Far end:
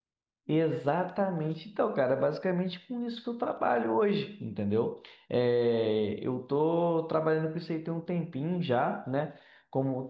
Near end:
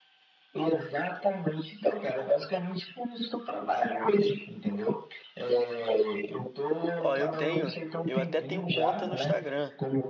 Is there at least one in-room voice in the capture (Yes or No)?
Yes